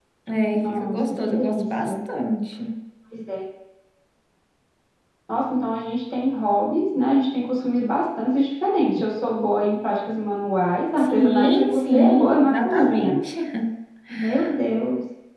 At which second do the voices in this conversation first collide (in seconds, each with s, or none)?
0.6 s